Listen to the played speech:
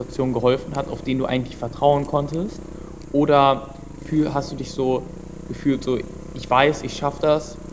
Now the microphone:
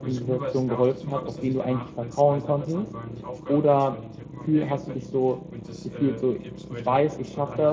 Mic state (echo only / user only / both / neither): both